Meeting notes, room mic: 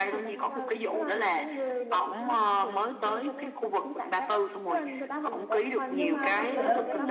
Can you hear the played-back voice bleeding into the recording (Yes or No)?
Yes